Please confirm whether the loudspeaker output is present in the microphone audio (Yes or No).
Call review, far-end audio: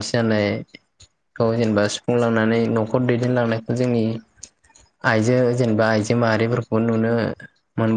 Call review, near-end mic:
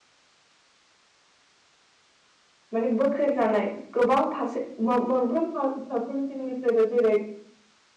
No